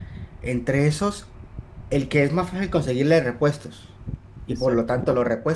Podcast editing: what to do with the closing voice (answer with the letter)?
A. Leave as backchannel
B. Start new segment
A